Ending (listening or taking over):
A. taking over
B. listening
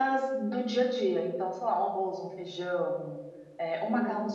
B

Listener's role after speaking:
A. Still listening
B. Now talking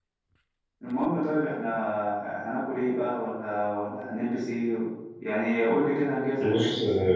B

